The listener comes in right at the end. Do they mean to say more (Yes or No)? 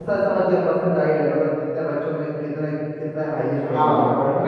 Yes